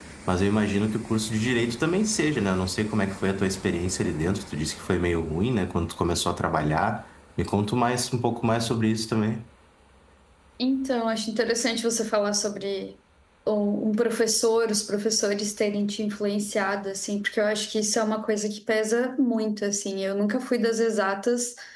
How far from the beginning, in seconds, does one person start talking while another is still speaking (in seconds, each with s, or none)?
none